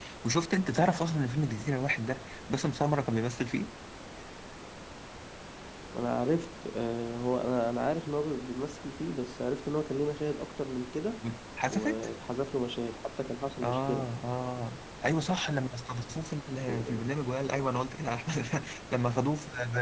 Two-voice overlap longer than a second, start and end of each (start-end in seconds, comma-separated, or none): none